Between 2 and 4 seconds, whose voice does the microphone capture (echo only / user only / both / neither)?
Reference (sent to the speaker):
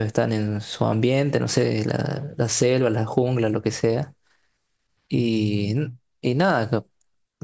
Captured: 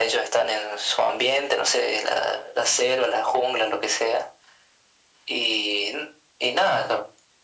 echo only